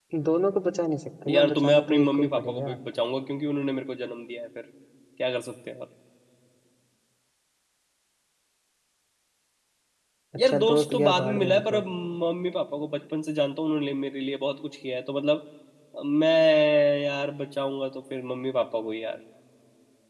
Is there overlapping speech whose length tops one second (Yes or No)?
Yes